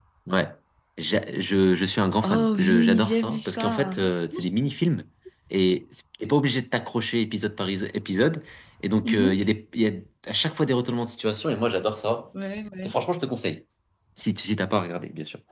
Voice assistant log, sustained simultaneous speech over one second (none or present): present